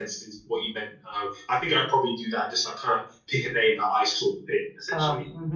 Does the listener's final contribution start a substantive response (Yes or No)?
Yes